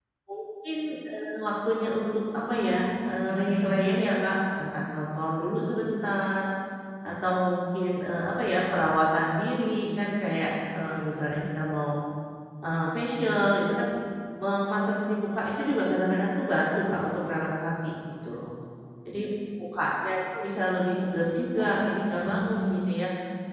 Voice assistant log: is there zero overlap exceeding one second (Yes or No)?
No